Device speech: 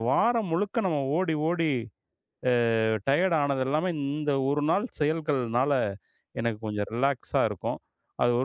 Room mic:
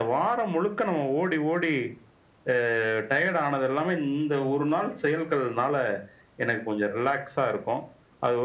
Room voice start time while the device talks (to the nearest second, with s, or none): none